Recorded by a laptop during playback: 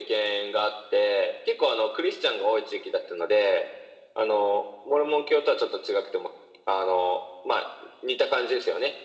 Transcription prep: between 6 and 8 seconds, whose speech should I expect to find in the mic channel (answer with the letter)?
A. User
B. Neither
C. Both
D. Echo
D